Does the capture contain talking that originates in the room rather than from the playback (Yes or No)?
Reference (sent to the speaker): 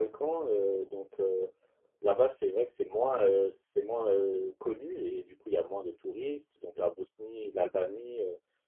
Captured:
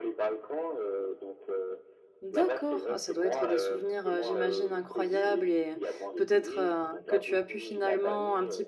Yes